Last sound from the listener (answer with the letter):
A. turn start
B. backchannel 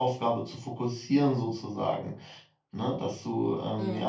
B